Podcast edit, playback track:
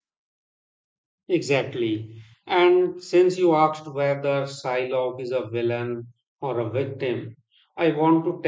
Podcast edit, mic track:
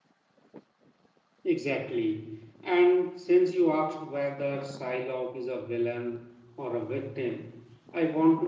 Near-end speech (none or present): none